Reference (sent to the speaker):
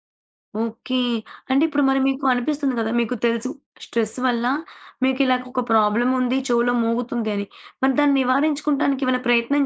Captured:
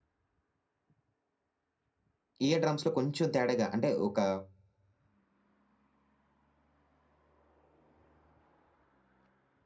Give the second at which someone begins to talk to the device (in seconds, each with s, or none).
2.5 s